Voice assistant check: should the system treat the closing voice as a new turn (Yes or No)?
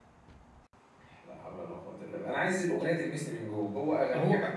Yes